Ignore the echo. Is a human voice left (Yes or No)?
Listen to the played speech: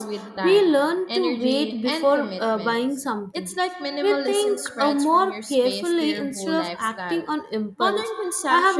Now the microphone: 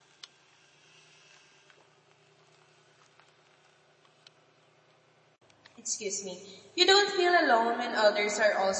Yes